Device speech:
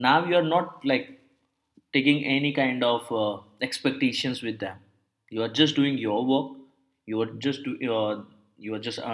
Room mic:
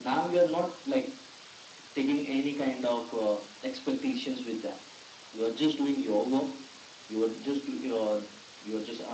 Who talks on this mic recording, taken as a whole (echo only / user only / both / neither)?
echo only